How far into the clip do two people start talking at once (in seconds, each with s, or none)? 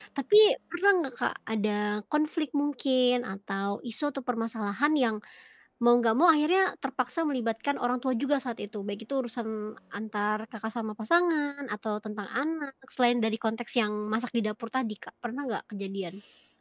none